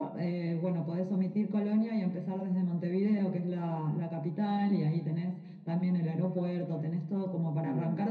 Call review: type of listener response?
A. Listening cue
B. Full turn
A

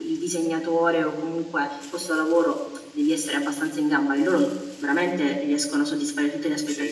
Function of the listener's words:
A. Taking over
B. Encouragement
A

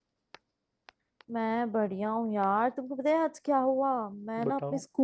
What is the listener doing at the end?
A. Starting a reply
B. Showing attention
B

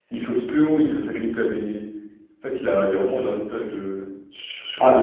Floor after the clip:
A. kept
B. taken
A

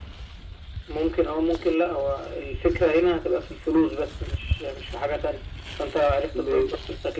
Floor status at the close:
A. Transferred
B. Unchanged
B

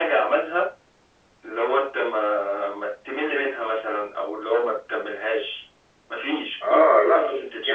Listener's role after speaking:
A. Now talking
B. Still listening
A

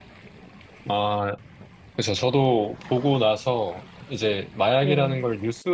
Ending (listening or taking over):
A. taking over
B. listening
B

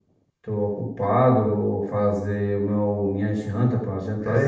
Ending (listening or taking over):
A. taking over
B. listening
A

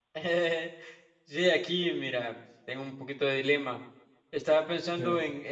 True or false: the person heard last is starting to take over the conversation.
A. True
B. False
B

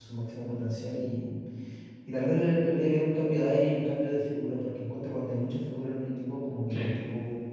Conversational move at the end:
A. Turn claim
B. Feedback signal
B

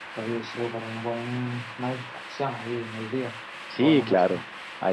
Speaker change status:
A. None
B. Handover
B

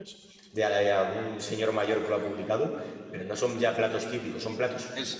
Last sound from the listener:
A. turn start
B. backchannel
B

